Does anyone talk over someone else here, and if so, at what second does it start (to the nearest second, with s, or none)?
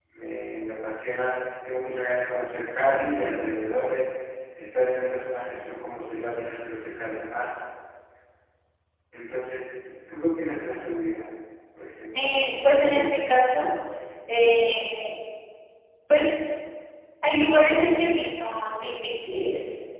12 s